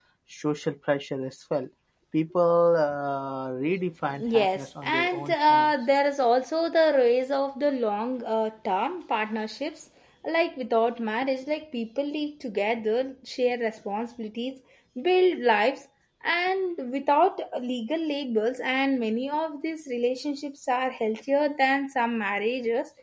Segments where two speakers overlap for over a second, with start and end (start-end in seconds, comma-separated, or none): 4.2-5.7